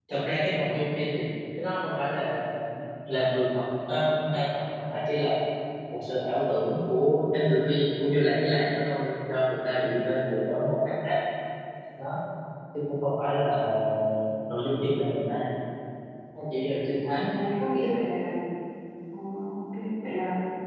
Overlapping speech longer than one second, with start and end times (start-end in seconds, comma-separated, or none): none